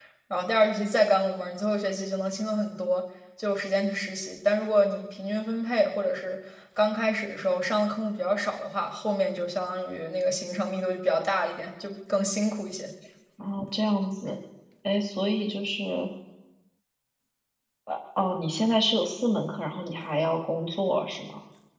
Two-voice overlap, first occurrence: none

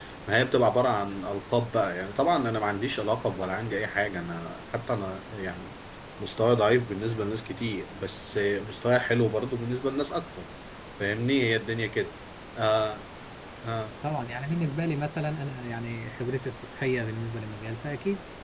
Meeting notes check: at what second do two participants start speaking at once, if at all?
none

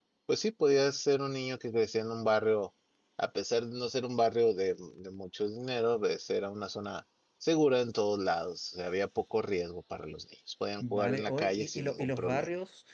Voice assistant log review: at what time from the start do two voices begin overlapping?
11 s

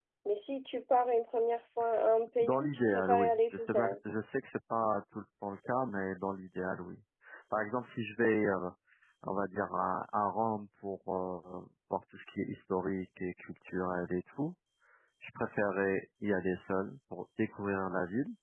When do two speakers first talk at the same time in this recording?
2 s

